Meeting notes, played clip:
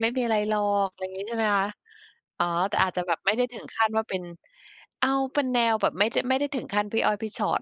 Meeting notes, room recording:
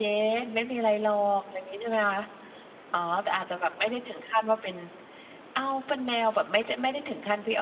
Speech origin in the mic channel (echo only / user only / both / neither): echo only